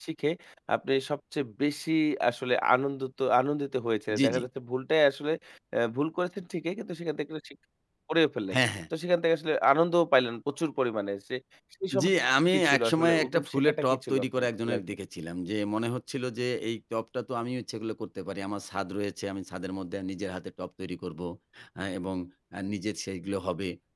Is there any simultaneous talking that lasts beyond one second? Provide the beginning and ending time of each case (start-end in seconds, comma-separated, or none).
12.5-14.8